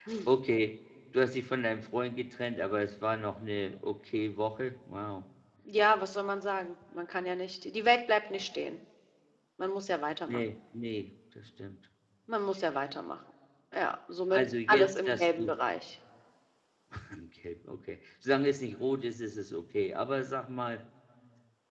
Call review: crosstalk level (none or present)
present